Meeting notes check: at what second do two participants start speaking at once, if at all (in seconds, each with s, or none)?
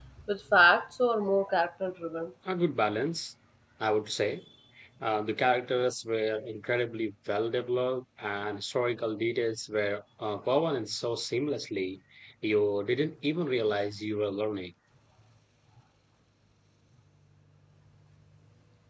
none